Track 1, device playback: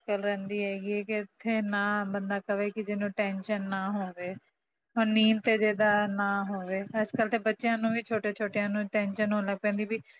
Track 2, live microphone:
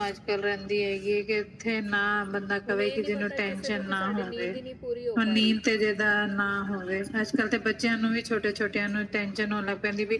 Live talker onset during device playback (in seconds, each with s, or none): 2.7 s